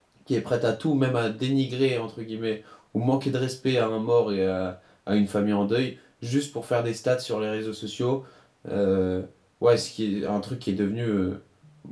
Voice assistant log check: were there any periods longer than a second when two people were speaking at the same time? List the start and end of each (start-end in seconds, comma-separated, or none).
none